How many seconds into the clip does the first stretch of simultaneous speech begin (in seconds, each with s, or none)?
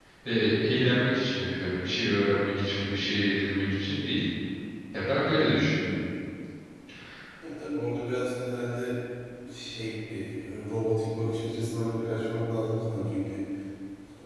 none